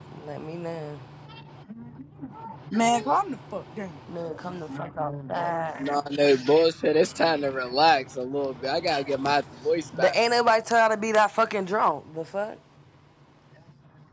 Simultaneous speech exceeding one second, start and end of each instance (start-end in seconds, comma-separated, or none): none